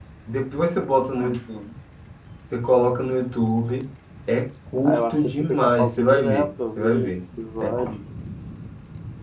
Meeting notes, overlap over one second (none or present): present